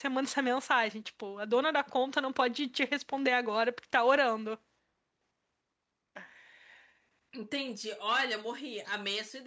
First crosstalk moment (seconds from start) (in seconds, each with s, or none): none